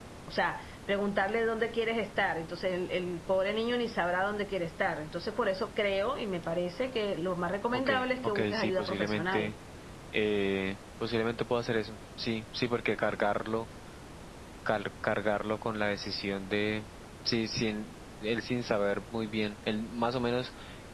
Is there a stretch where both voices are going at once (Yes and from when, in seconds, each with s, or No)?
Yes, from 7.9 s